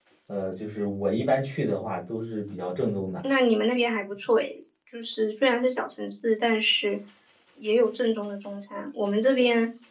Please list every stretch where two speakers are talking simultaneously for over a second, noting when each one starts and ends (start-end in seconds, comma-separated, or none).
none